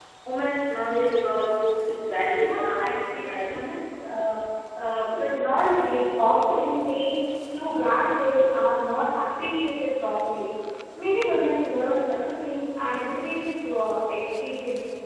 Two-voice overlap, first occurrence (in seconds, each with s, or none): 2.4 s